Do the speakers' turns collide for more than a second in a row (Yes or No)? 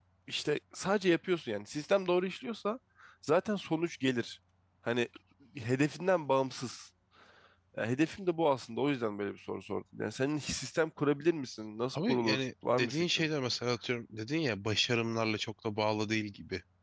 Yes